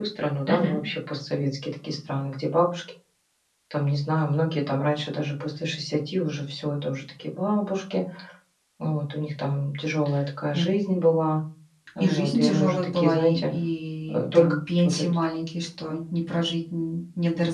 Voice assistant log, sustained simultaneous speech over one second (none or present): present